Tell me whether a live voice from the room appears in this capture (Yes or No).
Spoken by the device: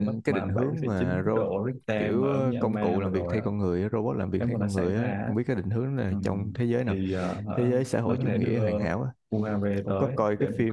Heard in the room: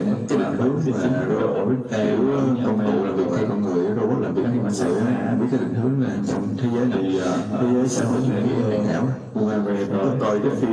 No